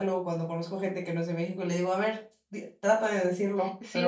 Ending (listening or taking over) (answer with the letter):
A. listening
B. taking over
B